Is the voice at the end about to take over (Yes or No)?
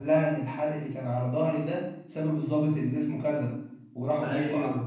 No